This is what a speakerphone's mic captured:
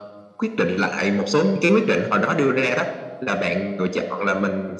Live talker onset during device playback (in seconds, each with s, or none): none